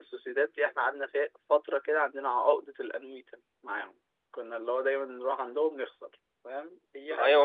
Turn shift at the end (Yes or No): Yes